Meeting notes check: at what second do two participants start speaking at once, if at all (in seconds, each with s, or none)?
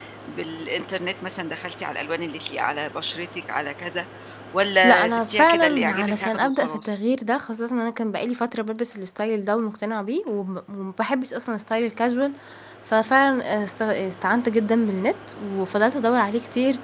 4.8 s